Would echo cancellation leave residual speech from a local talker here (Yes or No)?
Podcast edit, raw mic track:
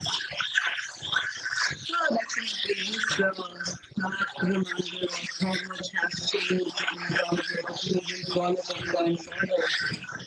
Yes